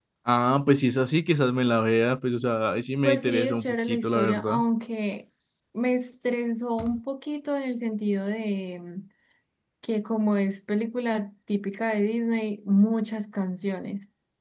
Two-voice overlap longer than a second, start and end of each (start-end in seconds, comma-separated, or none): 3.0-4.6